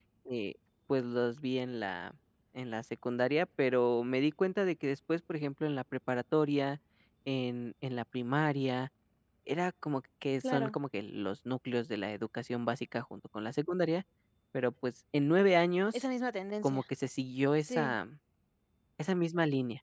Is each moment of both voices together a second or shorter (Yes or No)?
Yes